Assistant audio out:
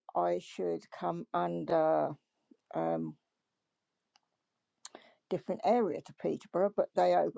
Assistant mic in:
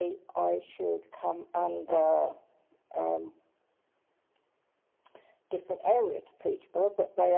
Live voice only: none

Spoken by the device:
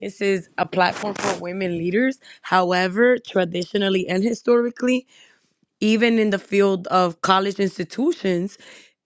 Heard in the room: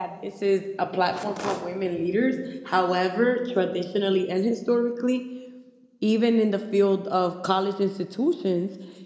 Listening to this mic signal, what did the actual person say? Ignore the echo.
none

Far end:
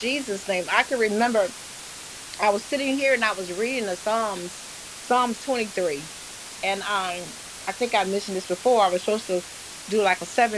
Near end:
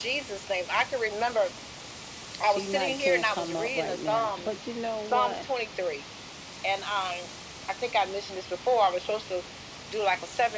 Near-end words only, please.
She might can't come up right now, but you know what?

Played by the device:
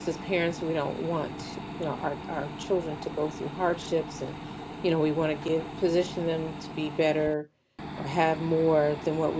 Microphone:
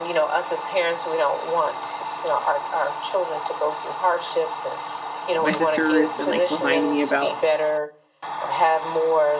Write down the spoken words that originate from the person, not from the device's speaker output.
my sister has been like reminding me about

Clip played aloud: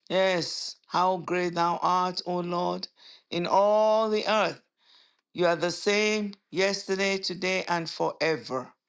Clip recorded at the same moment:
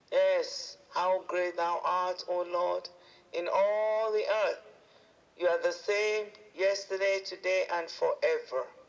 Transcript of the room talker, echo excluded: none

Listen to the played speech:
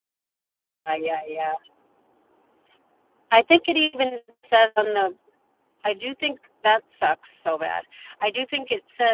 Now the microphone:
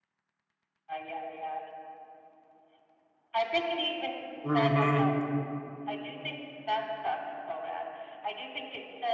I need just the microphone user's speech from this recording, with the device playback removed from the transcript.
Mm-hmm.

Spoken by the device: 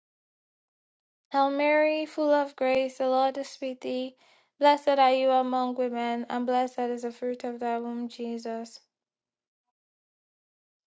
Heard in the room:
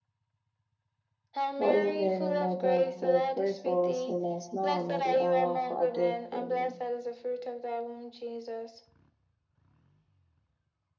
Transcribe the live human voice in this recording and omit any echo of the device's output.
Holy Mary, Mother of God, pray for us sinners now and at the hour of our death. Amen.

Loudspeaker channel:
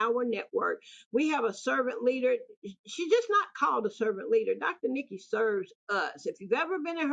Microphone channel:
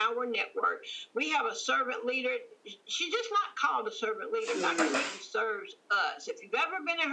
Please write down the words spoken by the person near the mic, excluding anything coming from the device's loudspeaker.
Mm.

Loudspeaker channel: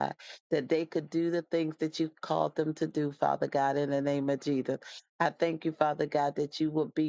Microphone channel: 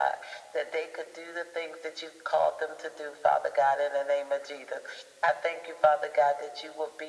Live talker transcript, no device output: none

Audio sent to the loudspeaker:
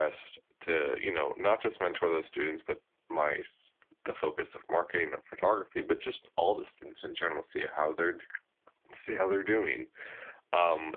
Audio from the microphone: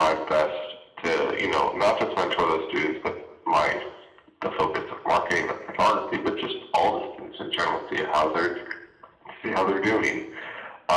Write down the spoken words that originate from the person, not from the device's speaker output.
none

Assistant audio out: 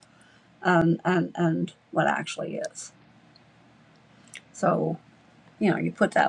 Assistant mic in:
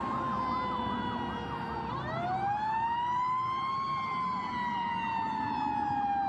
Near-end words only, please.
none

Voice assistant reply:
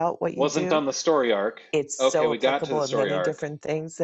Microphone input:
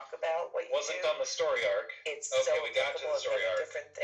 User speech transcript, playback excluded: none

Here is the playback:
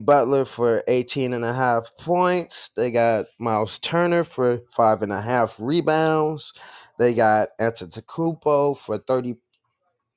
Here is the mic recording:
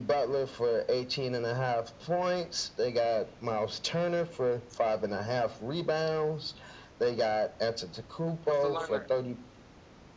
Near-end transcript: what's the lineup?

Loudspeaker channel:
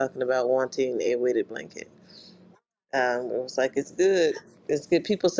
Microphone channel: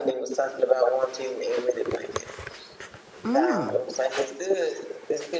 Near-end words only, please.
Mm,

